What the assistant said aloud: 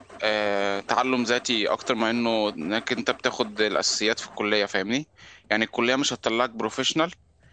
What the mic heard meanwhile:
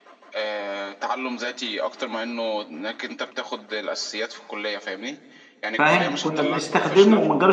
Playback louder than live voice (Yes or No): No